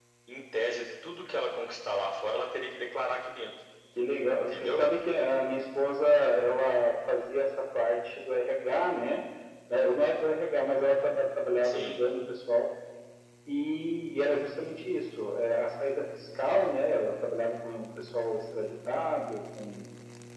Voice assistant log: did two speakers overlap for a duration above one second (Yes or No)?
No